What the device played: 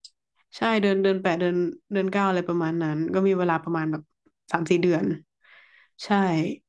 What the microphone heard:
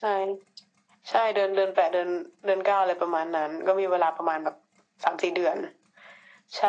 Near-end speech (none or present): none